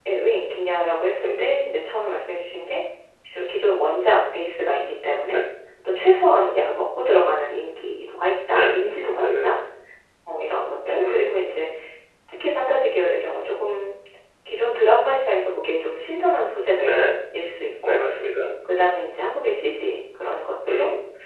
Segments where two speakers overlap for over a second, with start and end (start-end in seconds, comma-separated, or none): none